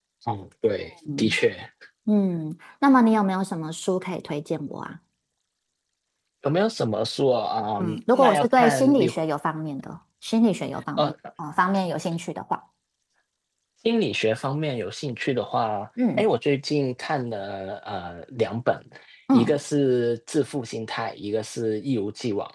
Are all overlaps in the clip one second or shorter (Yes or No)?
No